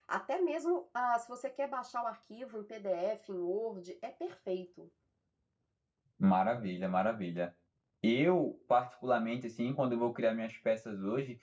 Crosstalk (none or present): none